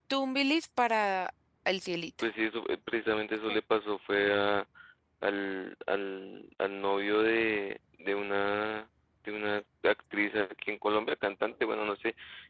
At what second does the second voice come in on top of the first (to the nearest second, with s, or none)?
none